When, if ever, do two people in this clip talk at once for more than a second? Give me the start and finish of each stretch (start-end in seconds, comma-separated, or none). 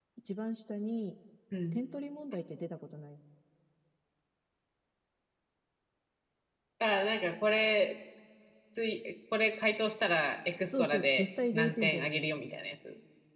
10.7-12.2